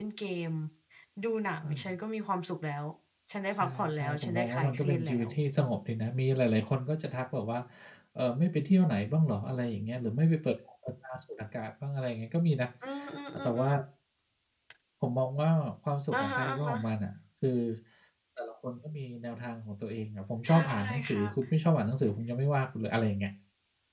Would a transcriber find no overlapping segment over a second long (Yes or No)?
No